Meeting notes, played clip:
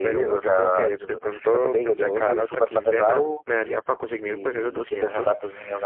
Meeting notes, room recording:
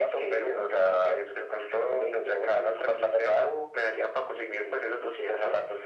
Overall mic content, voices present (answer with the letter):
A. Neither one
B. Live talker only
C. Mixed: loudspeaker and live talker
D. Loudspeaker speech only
D